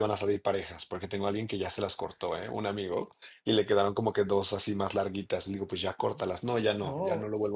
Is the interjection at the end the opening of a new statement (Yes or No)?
Yes